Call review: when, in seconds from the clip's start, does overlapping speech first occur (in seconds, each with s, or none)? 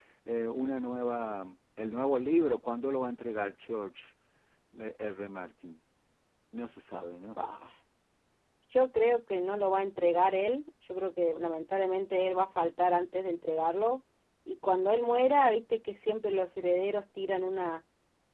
none